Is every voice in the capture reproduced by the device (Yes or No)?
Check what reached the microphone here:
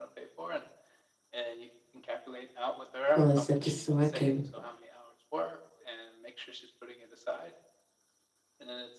No